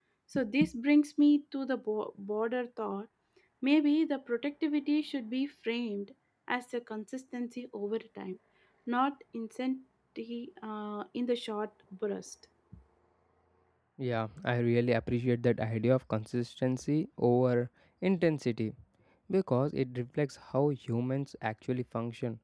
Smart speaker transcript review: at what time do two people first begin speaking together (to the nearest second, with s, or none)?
none